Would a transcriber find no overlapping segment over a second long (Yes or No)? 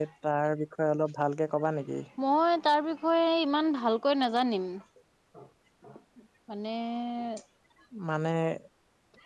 Yes